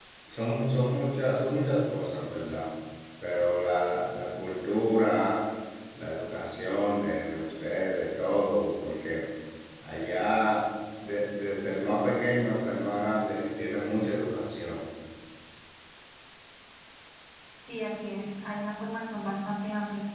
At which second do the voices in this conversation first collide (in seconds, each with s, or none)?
none